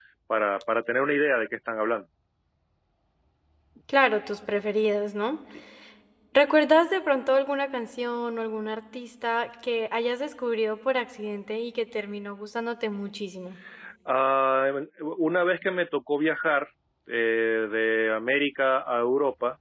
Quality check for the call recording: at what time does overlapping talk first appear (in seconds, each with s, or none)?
none